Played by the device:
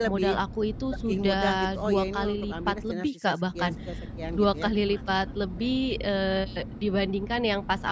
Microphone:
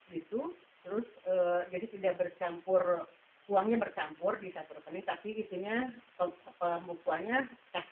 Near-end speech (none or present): present